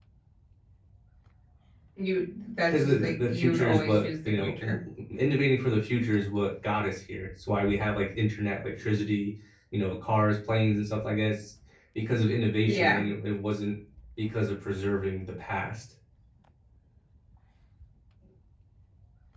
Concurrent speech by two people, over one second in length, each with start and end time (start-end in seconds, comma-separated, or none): 2.7-4.8